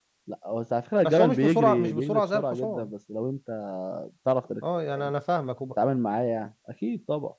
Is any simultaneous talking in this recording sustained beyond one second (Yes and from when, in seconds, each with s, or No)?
Yes, from 1.0 s